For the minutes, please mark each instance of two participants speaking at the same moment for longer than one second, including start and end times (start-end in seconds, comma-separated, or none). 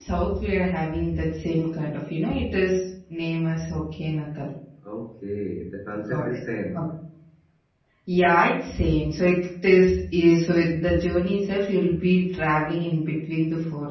none